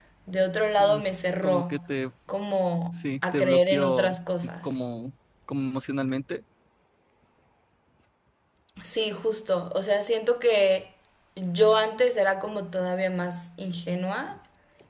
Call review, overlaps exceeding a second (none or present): present